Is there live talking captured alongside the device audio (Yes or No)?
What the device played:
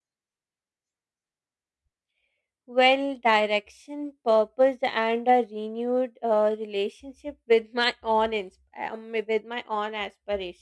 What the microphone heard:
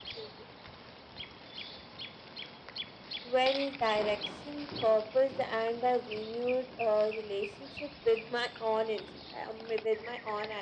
No